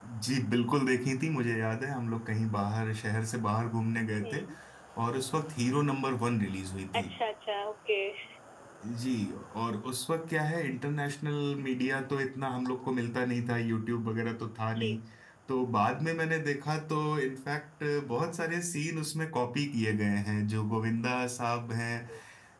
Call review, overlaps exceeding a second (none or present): none